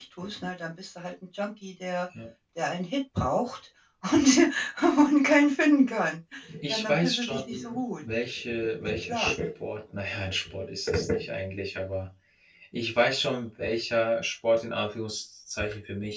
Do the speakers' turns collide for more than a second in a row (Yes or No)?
Yes